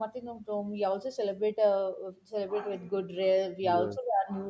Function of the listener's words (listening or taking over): listening